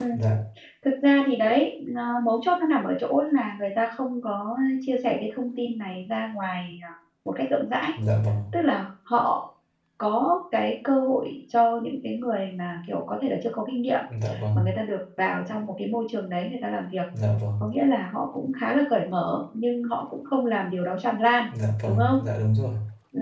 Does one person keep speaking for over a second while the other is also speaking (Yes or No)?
No